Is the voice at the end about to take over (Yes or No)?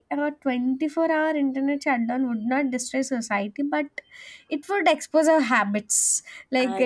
No